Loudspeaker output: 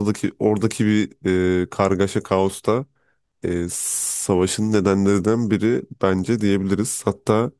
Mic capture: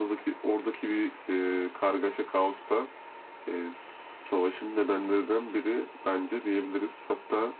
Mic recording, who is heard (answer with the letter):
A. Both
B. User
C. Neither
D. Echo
D